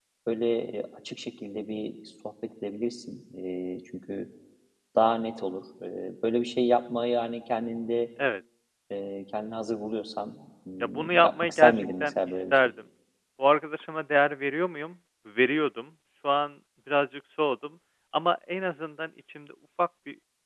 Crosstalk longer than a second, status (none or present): present